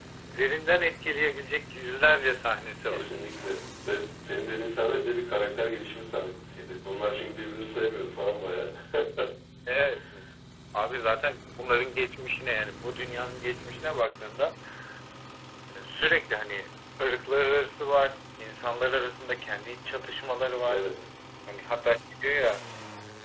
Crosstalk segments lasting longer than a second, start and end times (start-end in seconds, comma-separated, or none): none